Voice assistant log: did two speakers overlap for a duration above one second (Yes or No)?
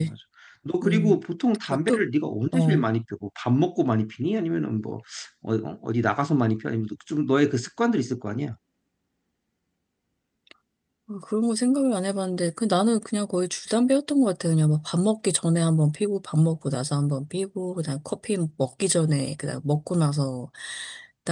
No